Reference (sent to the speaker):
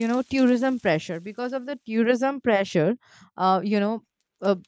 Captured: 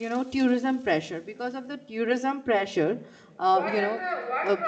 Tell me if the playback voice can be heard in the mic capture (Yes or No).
Yes